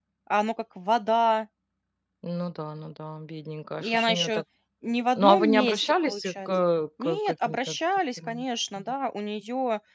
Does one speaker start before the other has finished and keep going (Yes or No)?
Yes